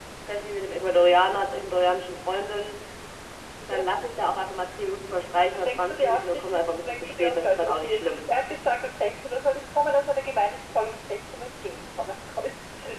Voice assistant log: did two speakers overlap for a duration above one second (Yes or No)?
Yes